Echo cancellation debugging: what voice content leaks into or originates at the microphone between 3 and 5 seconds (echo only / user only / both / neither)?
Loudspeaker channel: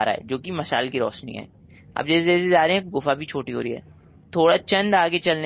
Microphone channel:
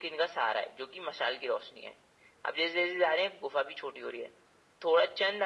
echo only